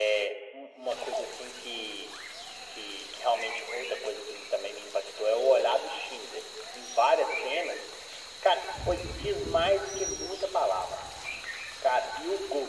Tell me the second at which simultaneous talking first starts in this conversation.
none

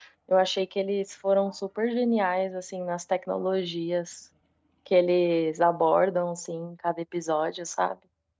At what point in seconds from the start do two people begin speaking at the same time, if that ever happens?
none

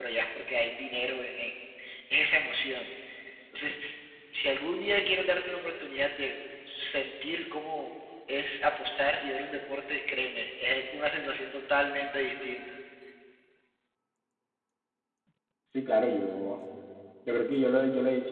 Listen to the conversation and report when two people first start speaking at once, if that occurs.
none

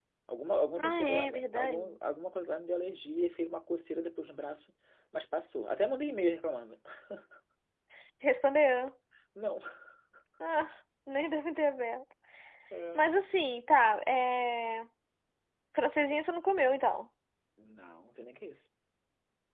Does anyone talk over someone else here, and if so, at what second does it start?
1 s

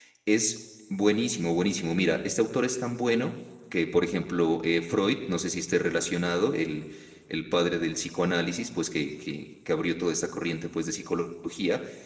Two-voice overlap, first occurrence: none

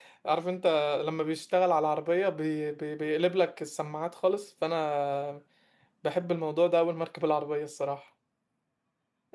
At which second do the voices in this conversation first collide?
none

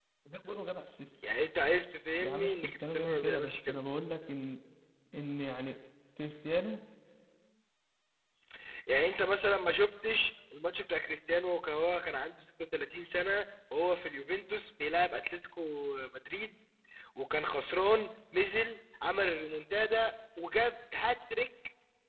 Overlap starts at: 2 s

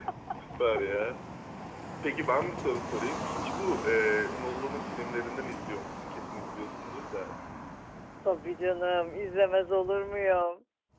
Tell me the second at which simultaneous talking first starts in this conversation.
none

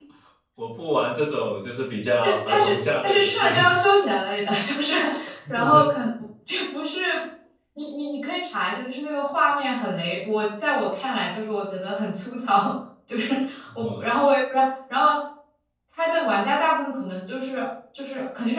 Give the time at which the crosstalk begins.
2 s

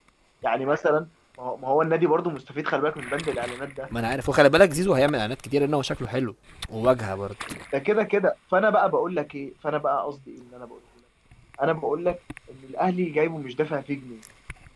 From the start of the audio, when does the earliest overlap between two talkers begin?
none

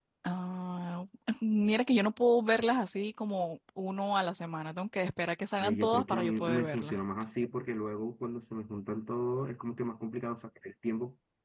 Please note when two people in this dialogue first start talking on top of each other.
6 s

